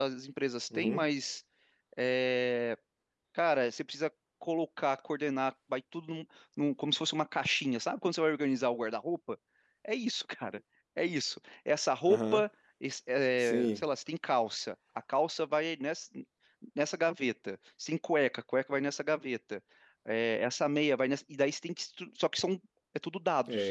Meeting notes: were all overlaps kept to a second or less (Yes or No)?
Yes